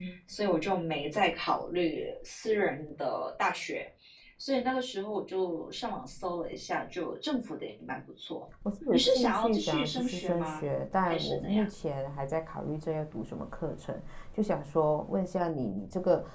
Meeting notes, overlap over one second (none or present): present